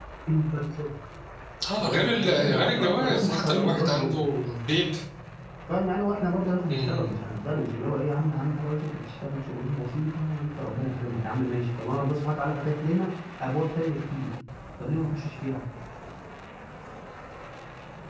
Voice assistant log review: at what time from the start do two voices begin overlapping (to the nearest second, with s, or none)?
2 s